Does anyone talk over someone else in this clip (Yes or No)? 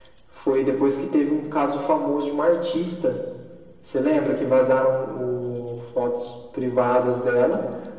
No